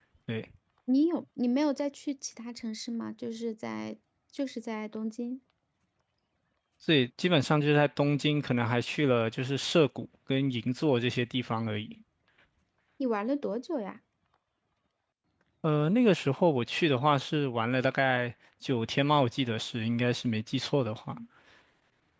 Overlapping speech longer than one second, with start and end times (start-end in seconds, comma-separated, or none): none